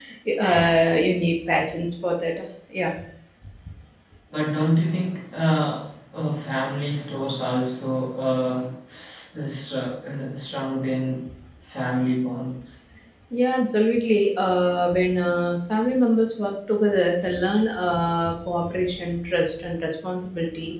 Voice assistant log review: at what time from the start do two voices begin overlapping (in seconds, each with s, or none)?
none